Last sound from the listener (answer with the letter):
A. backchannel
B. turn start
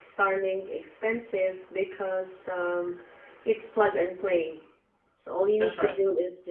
A